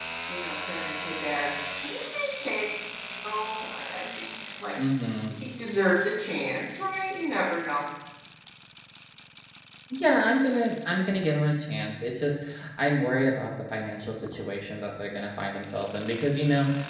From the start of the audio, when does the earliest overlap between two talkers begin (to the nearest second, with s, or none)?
none